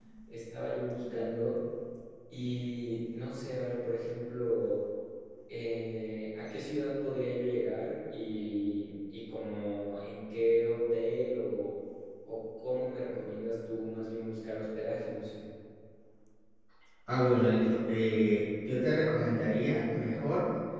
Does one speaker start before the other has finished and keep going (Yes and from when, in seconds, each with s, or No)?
No